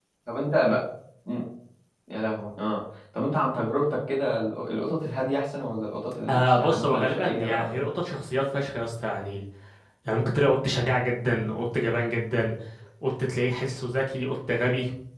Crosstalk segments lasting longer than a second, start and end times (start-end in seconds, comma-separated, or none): 6.3-7.8